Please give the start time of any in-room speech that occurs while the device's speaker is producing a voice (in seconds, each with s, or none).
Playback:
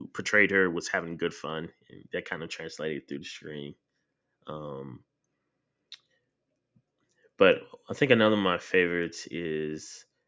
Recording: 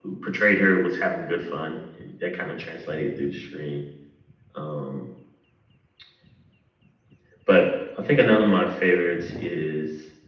none